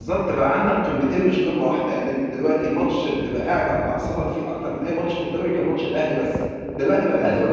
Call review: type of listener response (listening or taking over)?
taking over